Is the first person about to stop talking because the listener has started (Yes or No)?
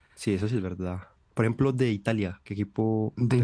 Yes